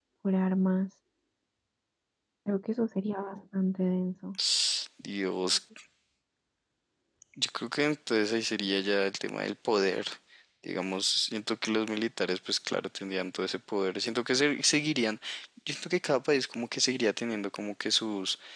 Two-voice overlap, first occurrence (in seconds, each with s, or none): none